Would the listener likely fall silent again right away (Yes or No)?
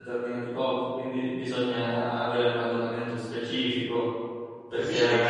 No